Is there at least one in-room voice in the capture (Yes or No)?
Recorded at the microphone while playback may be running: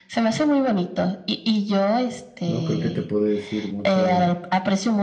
Yes